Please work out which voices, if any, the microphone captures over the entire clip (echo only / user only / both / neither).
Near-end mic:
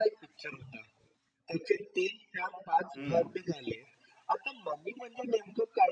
both